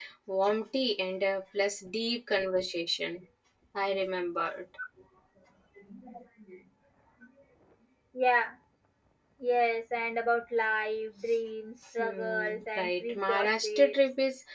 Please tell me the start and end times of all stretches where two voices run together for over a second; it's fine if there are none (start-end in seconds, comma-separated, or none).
12.0-14.0